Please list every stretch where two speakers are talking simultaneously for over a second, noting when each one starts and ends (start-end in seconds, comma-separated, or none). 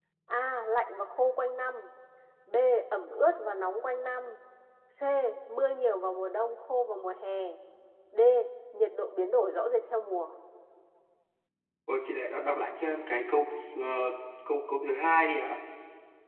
none